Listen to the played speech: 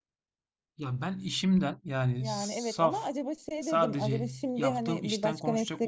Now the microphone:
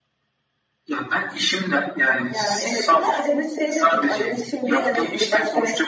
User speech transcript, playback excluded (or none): none